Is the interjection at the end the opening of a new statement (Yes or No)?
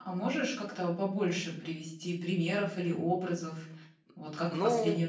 No